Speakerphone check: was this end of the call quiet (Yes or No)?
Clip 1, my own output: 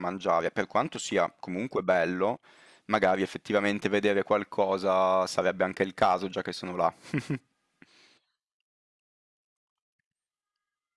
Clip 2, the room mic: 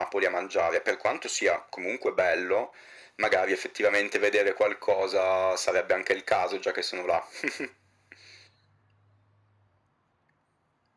Yes